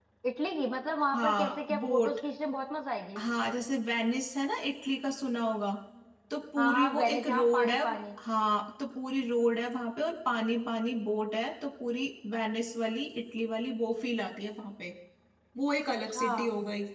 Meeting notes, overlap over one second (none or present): present